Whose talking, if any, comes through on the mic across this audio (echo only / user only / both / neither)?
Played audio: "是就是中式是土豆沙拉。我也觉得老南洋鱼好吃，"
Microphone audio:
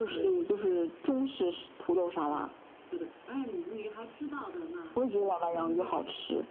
both